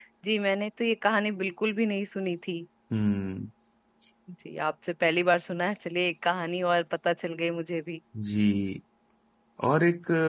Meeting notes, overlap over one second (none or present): none